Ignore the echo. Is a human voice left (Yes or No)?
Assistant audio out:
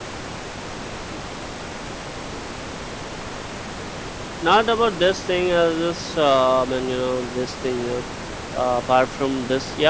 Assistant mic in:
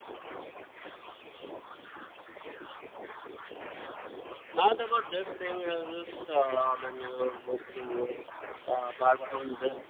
Yes